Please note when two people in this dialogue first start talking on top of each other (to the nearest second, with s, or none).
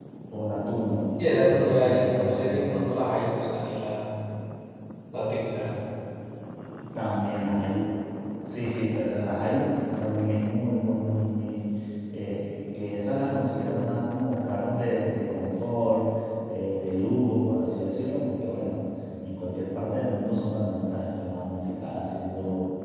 1 s